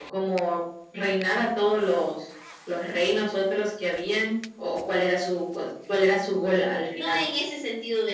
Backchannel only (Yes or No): No